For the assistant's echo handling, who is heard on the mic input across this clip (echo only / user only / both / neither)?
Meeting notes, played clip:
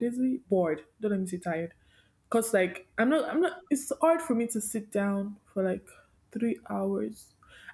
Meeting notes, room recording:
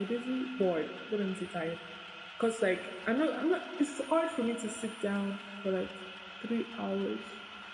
echo only